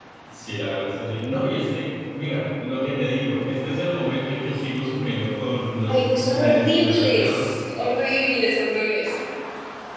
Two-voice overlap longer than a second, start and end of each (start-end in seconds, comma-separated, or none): 5.9-7.4